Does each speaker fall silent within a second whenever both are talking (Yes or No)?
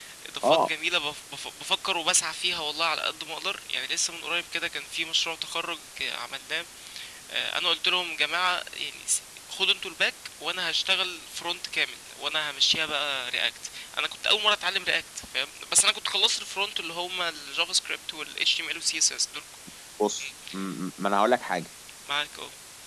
Yes